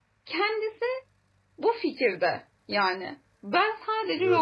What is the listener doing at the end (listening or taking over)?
listening